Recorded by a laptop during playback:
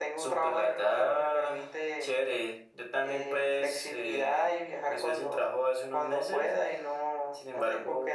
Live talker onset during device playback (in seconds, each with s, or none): none